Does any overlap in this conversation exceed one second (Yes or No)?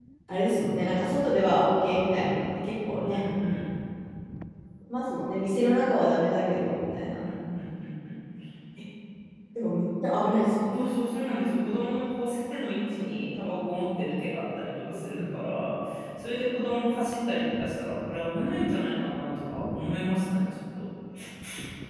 No